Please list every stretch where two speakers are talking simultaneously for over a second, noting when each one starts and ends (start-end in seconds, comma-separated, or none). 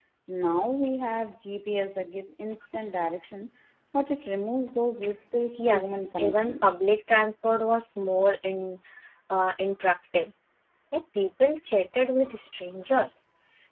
5.6-6.8